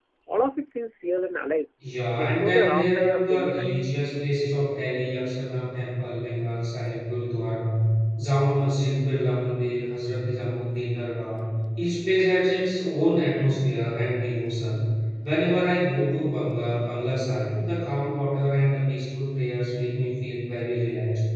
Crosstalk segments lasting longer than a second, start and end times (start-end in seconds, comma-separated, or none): 2.2-3.7